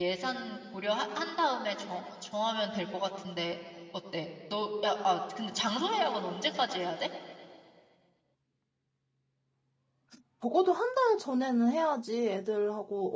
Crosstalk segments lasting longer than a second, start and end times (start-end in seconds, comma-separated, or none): none